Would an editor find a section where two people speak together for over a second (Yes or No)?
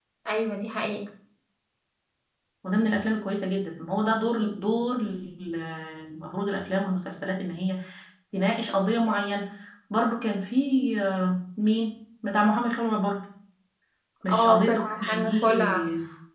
Yes